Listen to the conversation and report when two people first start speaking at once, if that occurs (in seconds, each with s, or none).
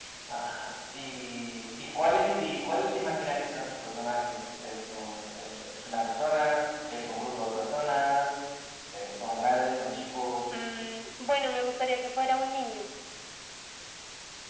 none